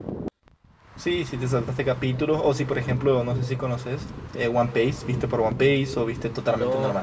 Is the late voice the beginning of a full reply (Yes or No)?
Yes